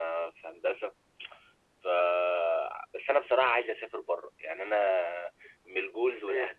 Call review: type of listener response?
taking over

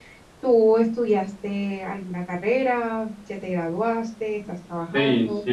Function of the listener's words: taking over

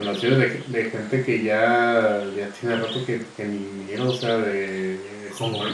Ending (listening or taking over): listening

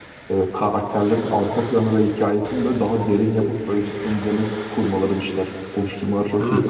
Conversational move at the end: taking over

